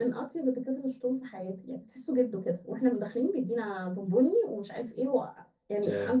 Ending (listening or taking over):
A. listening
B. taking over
A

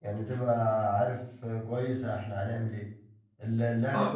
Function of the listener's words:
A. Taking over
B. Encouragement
B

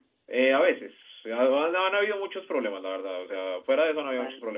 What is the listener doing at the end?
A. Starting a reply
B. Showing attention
B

